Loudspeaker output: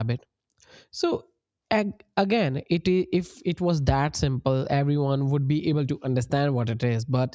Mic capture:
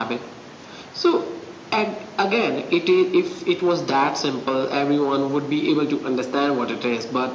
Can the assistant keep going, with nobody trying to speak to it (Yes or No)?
Yes